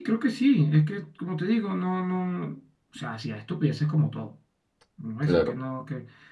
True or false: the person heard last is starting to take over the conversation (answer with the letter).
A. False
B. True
A